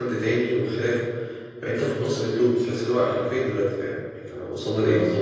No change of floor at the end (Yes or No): No